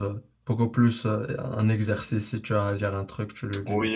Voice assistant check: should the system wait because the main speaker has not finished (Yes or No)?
No